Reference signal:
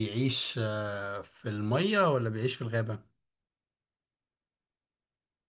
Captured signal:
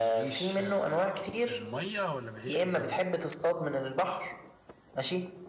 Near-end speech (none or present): present